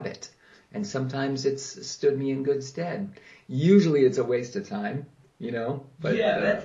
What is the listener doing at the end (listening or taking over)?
taking over